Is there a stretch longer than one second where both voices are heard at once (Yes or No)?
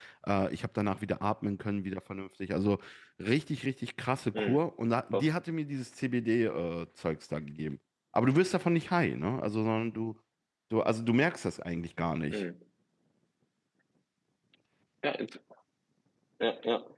No